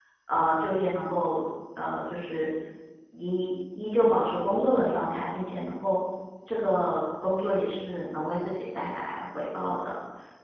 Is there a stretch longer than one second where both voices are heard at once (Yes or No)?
No